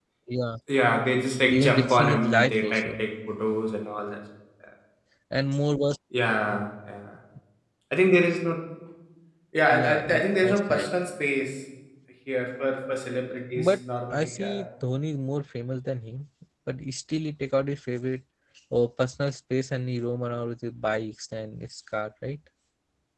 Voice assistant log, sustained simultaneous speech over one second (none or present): present